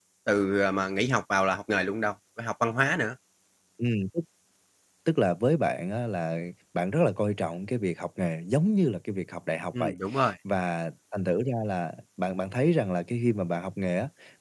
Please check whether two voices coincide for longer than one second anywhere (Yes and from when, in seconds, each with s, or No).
No